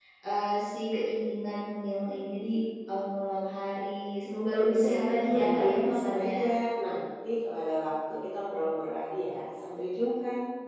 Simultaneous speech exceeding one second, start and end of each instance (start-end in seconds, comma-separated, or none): 4.5-6.4